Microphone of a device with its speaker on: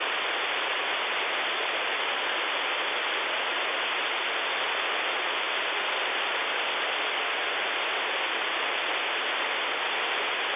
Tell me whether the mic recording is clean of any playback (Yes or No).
Yes